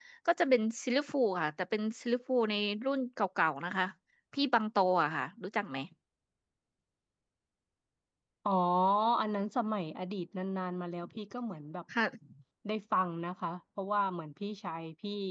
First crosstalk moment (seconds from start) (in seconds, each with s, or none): none